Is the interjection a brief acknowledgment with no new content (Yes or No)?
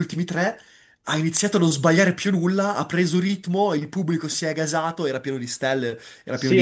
No